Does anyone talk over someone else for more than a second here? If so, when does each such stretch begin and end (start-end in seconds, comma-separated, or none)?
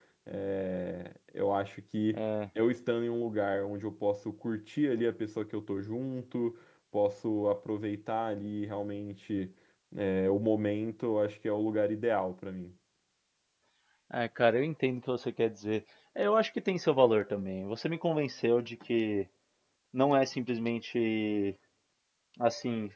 none